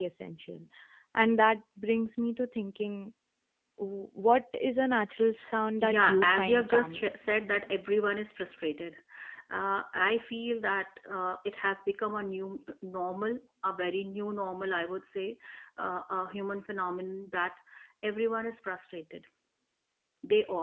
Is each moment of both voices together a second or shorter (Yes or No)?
No